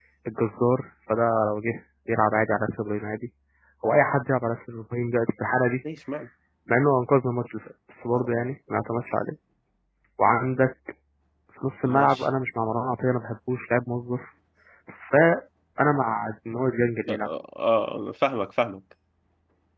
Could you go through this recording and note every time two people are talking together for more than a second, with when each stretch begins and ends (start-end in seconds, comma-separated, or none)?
none